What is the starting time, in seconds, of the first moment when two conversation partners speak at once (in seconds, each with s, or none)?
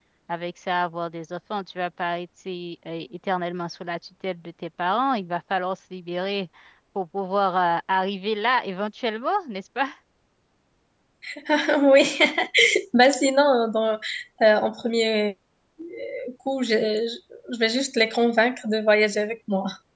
none